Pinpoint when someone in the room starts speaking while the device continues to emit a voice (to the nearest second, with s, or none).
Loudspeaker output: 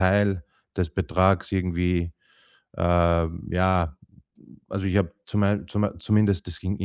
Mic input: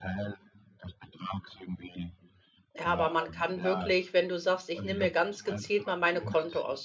3 s